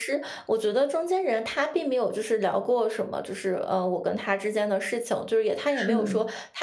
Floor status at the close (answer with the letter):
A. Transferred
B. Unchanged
B